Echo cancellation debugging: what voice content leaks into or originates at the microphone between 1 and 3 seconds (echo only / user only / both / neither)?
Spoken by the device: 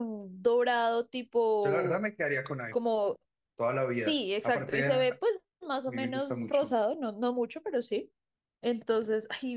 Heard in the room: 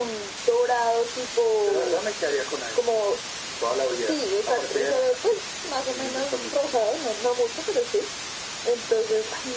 echo only